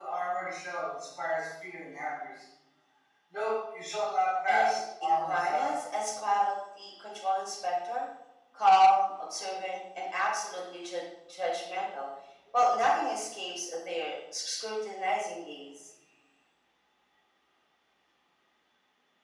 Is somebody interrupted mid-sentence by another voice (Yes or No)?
Yes